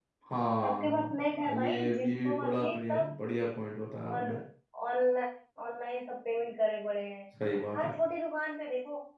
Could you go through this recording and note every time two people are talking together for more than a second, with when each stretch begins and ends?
0.6-3.1

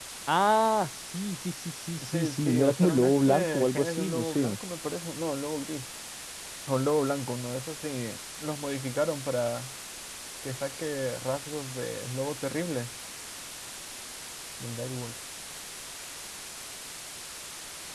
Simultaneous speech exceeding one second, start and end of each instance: 2.0-4.6

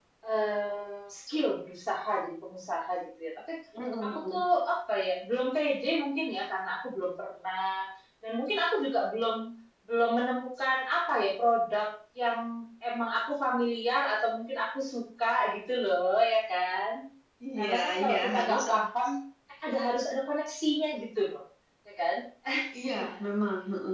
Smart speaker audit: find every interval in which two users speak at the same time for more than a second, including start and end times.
17.6-18.8

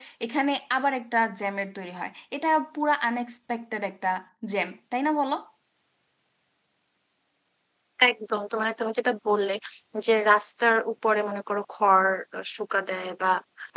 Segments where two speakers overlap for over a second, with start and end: none

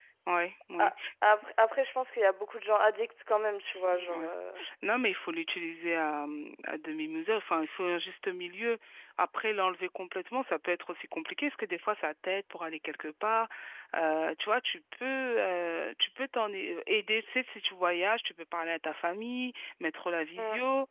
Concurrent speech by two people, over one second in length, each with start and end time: none

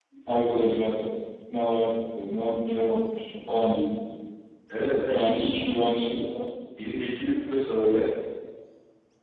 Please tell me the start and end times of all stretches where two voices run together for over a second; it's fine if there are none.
none

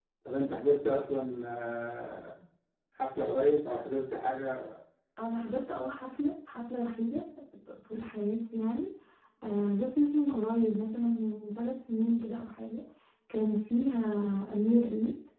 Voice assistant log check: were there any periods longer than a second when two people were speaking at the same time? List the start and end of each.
none

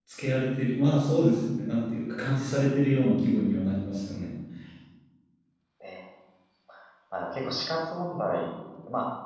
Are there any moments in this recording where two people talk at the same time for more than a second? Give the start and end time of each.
none

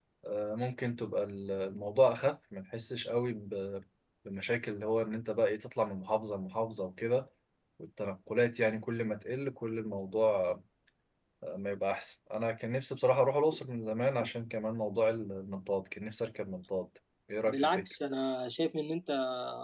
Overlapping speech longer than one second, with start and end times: none

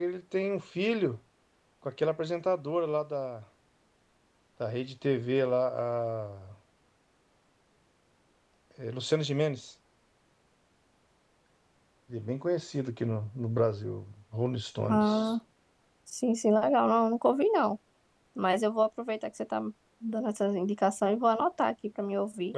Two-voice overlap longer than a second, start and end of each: none

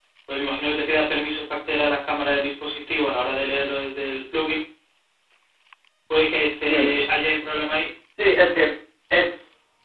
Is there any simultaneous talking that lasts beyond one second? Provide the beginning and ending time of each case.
none

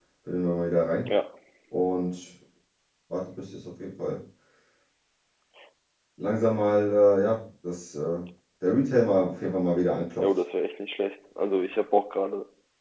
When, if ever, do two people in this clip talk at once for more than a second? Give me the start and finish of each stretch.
none

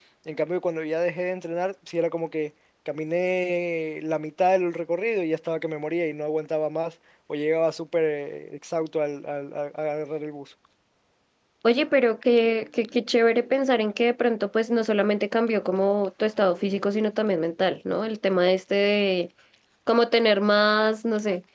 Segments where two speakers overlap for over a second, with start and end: none

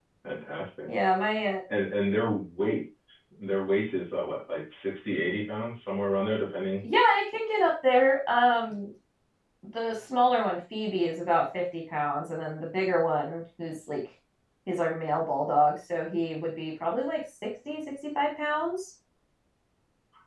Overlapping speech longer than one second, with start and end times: none

